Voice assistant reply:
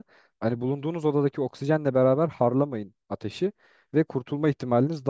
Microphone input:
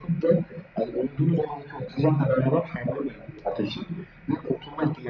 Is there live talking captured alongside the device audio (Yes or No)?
No